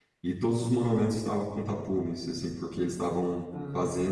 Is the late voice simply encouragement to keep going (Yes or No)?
Yes